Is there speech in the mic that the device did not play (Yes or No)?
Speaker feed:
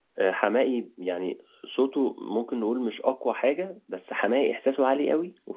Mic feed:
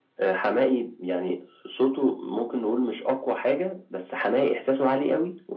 No